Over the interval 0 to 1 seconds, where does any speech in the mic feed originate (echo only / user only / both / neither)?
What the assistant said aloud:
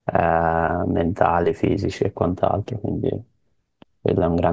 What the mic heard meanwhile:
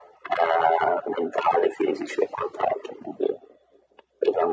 echo only